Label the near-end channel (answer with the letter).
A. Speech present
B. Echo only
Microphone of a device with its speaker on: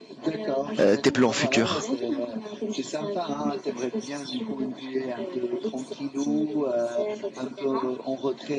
A